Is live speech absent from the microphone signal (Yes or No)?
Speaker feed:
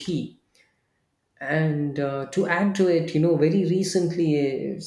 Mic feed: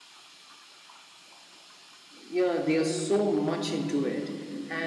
No